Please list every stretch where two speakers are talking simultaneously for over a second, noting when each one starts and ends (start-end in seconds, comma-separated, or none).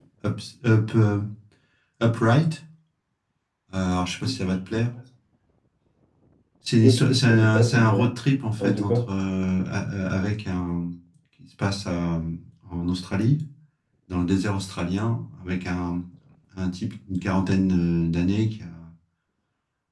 6.8-8.1